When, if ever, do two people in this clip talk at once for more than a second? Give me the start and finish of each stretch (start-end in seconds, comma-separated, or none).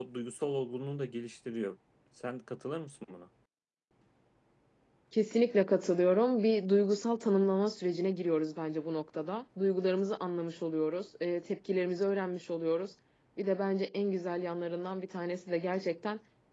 none